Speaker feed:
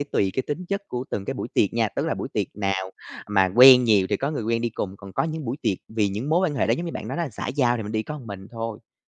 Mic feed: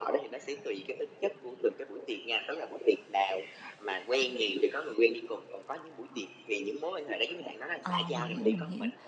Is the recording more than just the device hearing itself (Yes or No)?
Yes